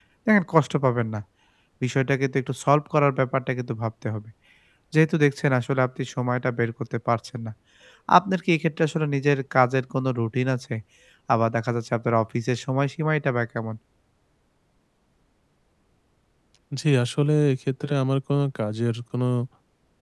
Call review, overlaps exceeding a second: none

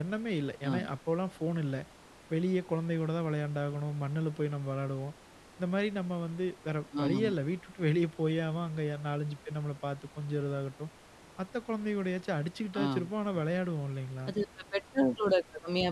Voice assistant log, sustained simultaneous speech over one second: none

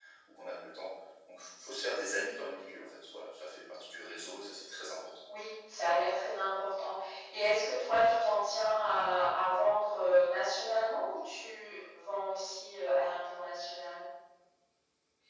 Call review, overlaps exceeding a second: none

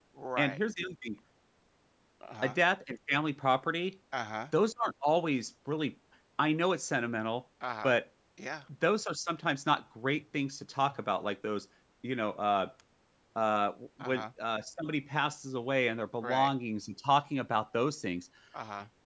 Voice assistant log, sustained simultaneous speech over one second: none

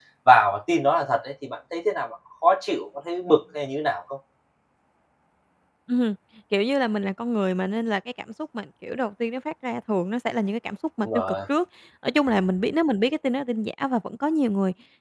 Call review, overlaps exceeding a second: none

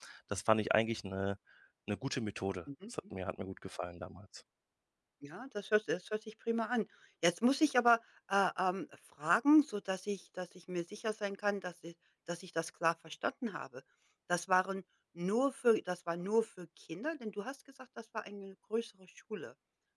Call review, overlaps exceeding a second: none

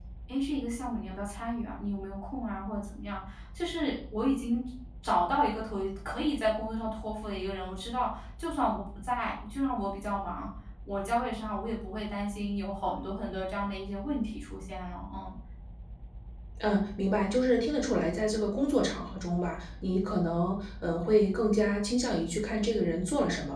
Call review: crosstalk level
none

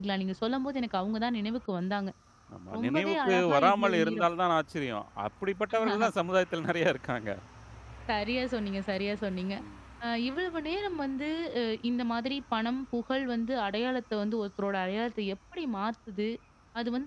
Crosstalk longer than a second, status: present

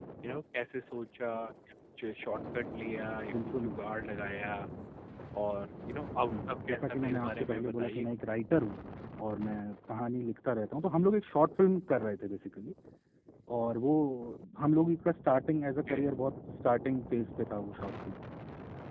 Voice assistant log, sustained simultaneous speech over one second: present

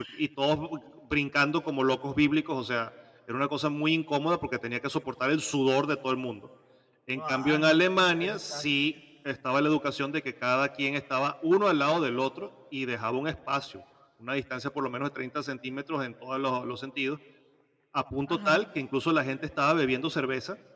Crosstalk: present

